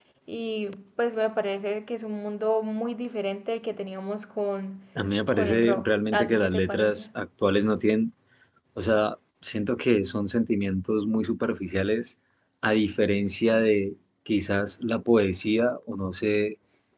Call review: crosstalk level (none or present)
present